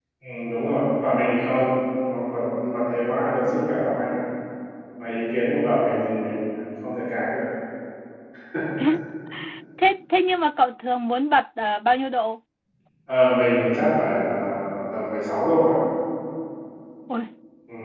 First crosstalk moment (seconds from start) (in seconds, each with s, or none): none